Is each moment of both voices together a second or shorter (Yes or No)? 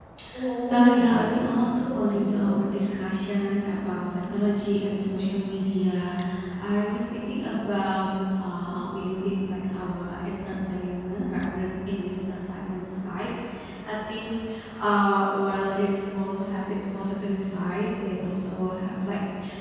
No